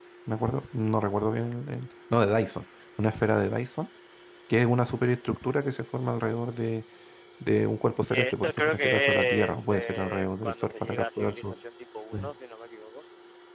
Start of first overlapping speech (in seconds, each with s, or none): 8.1 s